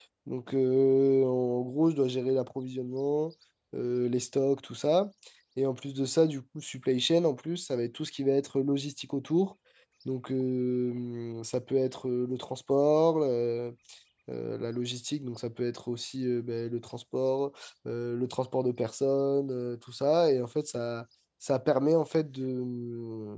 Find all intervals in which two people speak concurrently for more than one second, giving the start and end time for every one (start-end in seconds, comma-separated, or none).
none